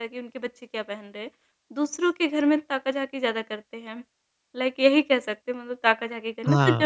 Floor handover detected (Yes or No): Yes